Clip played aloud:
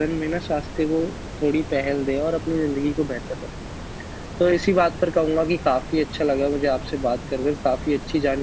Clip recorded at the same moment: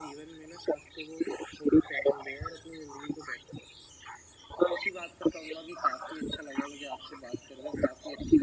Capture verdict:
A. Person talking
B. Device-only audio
B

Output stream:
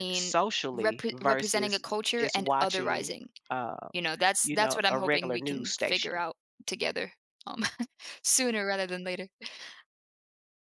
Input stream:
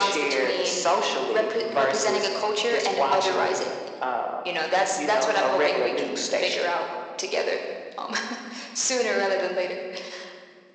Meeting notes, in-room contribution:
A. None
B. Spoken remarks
A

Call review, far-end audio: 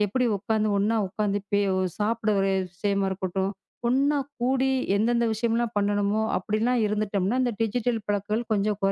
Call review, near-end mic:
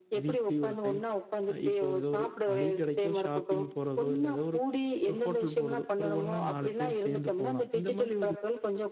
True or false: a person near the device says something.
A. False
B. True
B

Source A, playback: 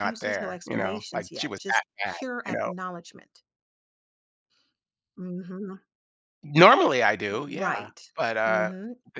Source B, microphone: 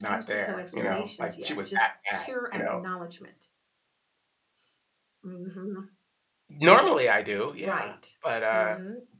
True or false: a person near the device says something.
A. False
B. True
A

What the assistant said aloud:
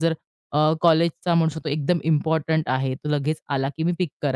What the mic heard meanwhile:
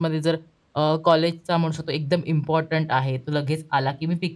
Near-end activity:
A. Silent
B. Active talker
A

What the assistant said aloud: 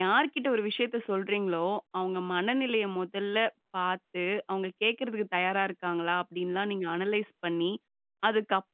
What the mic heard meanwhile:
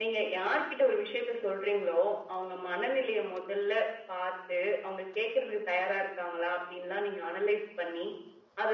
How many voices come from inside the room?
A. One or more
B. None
B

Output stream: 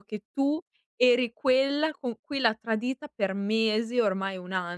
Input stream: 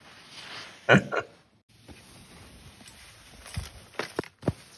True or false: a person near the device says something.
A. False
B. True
B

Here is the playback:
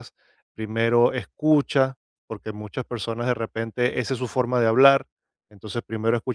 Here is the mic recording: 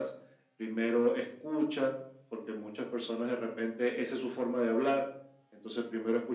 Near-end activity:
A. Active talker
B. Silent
B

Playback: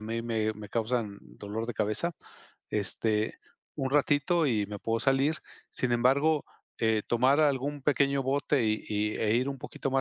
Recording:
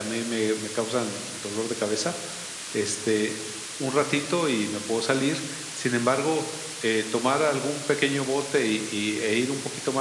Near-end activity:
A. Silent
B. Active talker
A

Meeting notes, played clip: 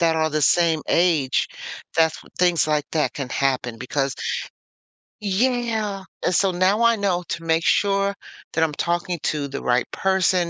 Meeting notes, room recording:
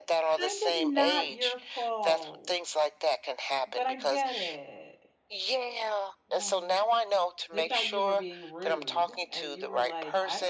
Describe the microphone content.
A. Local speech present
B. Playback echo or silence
A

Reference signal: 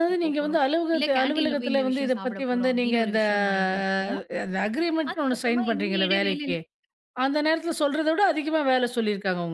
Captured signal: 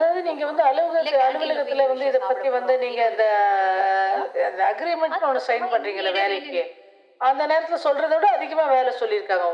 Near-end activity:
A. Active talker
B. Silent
B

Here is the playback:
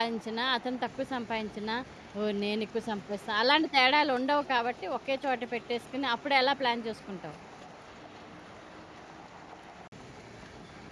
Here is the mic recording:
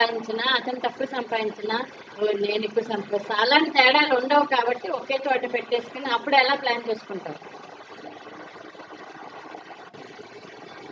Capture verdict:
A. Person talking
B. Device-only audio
B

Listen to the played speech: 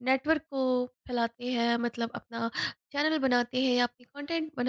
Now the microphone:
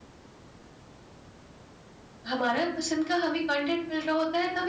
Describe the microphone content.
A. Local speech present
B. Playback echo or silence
A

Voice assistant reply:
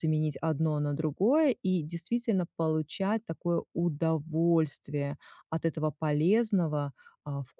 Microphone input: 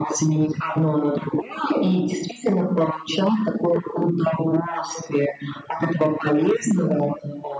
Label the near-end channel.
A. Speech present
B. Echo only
B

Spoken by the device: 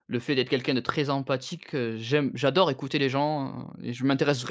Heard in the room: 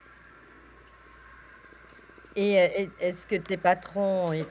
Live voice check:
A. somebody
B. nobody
A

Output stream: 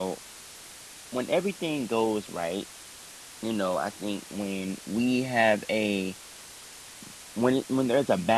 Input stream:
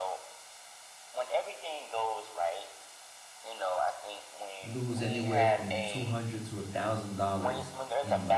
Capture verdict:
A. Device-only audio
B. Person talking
B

